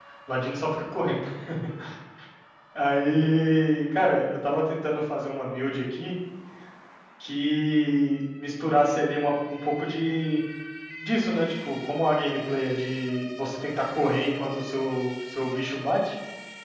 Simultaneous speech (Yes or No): No